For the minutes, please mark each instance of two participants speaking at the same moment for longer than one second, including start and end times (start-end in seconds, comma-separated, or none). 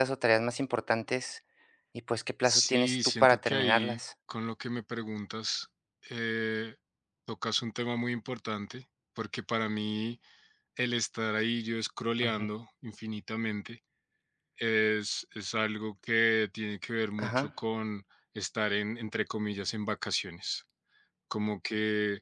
2.4-4.0